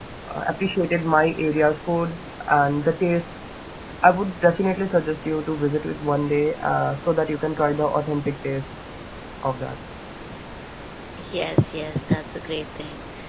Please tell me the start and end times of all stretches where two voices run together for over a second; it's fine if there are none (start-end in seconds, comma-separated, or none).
none